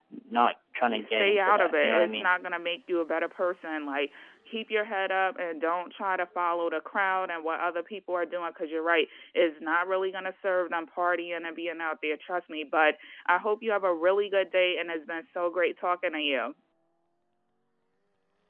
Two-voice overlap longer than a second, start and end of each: 0.9-2.3

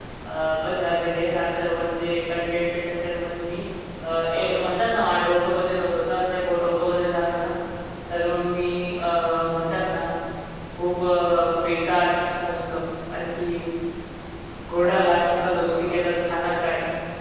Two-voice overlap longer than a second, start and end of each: 14.8-16.0

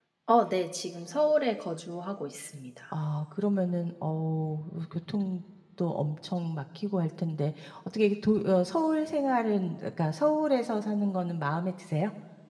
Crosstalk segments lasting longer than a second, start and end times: none

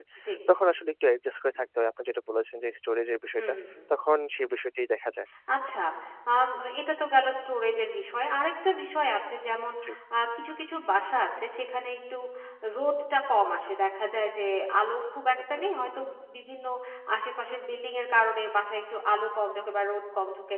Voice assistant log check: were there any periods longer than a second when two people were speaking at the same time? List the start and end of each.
none

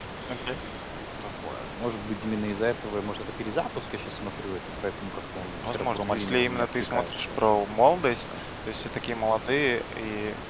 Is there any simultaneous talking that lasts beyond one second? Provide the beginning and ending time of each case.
5.6-7.3

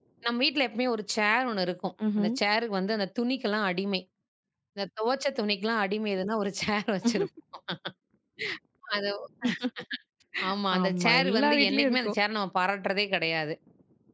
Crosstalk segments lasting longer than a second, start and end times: 10.8-12.2

